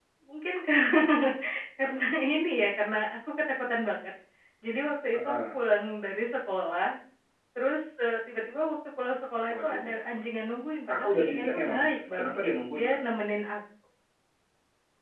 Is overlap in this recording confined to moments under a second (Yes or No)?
No